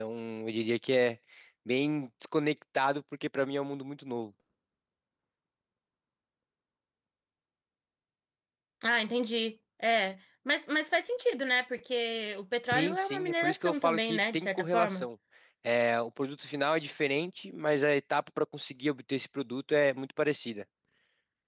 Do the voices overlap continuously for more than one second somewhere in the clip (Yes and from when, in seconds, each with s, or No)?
Yes, from 12.7 s